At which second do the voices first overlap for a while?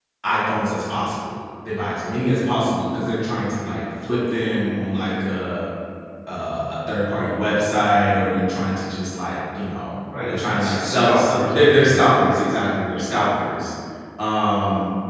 10.1 s

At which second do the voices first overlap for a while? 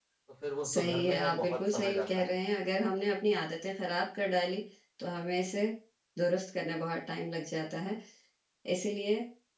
0.8 s

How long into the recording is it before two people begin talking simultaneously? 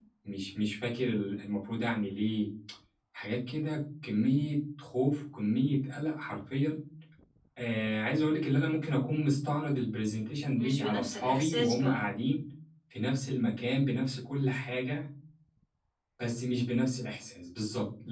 10.6 s

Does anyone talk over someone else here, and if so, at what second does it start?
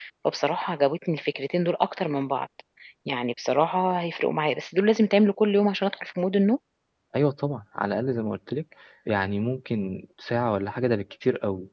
none

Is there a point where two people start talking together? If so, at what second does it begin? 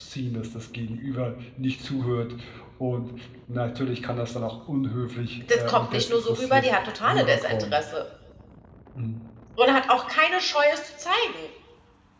5.4 s

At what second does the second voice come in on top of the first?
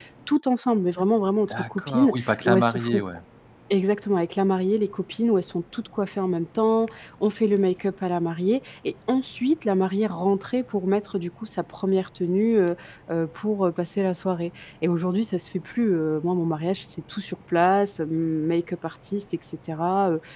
1.5 s

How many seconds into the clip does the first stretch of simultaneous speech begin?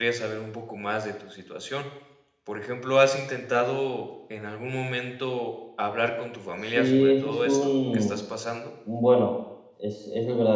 6.6 s

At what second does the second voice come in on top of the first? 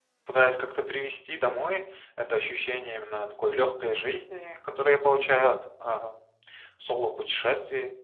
none

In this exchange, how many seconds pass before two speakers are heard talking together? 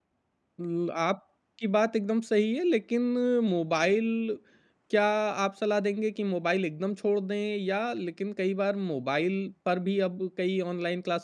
none

